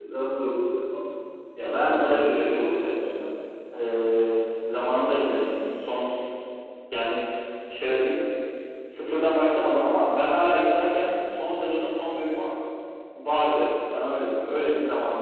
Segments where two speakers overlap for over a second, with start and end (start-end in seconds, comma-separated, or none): 1.6-3.0